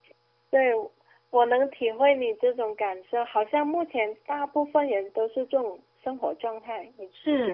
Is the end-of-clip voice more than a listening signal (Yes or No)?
Yes